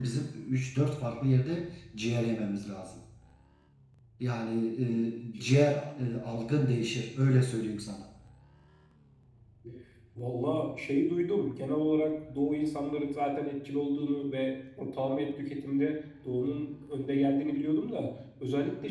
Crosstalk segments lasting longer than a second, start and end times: none

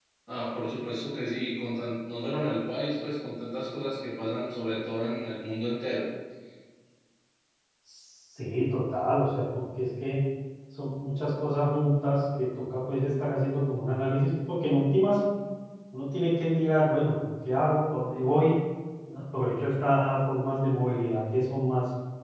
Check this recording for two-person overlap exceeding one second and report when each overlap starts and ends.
none

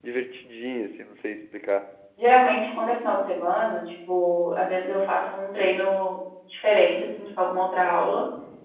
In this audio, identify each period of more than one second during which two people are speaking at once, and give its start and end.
none

